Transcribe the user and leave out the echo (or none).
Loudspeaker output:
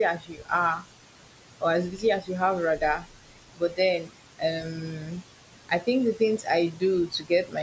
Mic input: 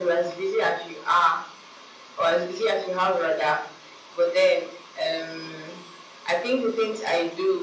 none